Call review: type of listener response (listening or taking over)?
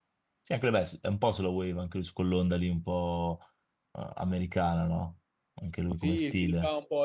taking over